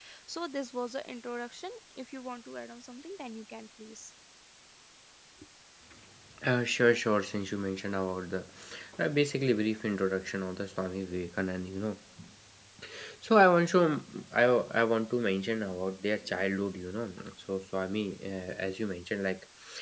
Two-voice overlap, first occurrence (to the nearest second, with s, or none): none